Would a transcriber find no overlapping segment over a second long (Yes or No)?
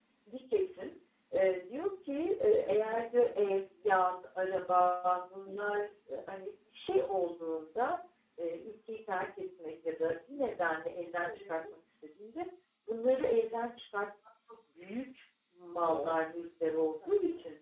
Yes